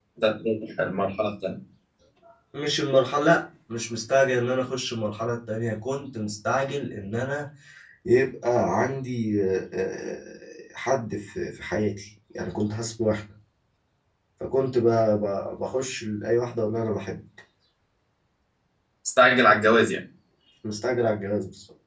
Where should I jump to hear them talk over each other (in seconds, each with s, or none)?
none